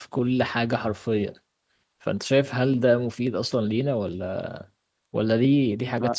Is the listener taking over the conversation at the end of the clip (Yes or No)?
Yes